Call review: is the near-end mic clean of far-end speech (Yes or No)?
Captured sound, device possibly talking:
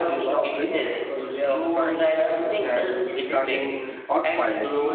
No